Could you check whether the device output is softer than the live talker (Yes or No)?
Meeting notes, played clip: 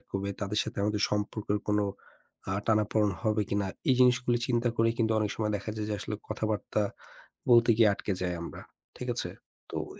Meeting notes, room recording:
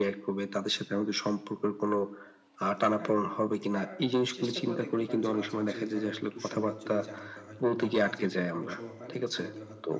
No